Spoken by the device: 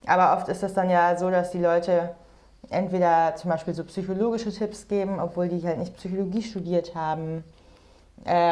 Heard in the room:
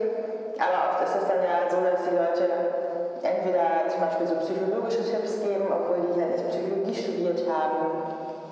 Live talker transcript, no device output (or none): none